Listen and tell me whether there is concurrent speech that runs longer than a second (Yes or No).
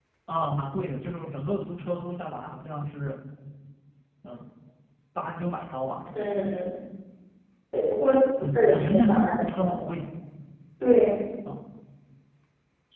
Yes